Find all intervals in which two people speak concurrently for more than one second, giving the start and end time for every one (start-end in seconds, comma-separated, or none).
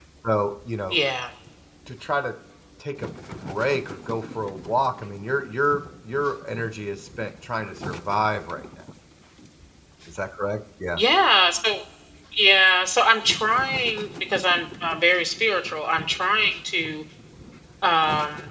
none